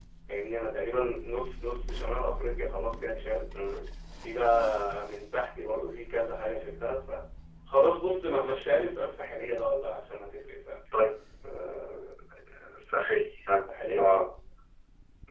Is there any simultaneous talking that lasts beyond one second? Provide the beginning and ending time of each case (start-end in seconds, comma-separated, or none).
none